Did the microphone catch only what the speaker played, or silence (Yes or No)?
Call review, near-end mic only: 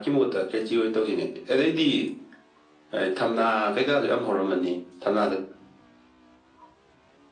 Yes